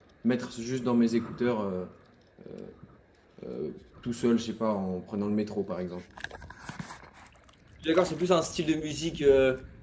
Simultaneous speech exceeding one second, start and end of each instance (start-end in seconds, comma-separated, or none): none